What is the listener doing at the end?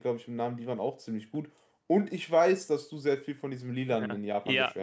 taking over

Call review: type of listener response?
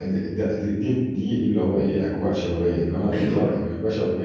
listening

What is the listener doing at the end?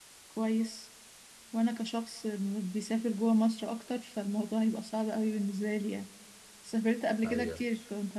listening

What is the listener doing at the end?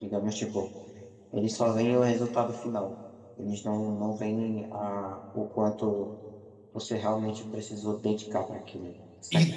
taking over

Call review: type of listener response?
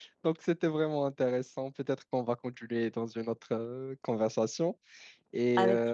listening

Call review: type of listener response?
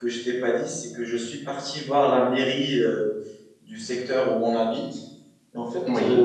listening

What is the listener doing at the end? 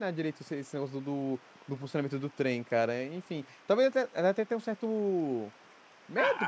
taking over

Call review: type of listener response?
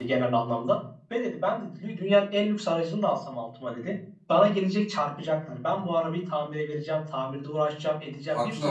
listening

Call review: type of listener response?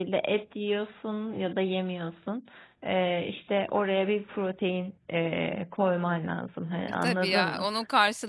taking over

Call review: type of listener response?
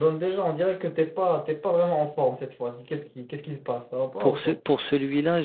taking over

